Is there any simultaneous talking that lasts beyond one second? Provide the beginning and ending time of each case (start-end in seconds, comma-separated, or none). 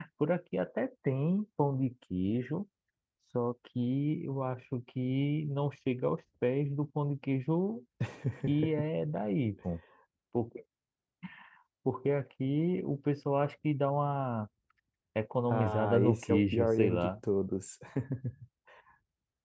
15.5-17.1